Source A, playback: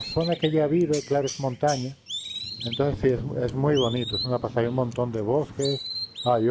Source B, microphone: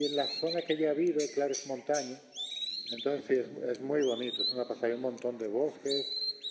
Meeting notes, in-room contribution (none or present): none